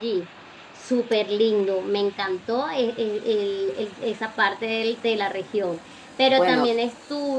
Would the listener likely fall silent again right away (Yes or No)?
Yes